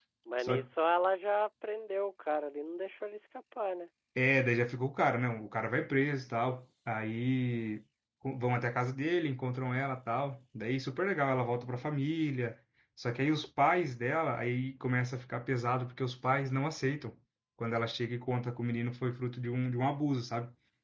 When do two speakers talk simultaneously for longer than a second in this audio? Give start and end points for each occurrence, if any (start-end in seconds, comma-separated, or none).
none